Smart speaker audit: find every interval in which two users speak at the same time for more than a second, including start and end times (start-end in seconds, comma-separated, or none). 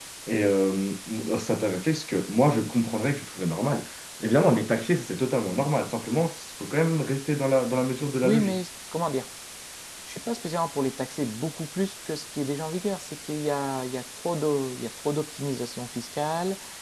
none